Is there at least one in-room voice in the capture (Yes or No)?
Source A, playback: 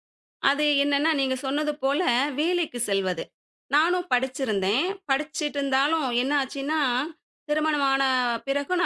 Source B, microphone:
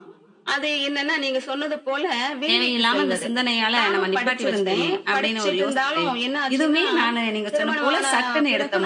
Yes